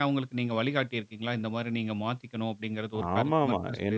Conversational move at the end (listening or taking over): taking over